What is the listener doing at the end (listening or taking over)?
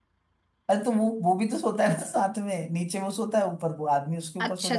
taking over